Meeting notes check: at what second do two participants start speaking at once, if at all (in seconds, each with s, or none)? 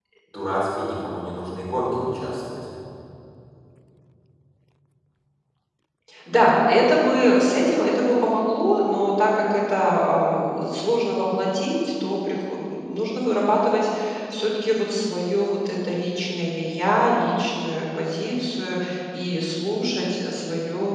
none